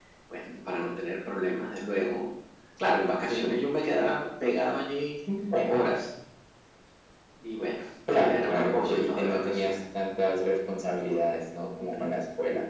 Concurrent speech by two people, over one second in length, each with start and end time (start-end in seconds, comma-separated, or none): 8.1-9.8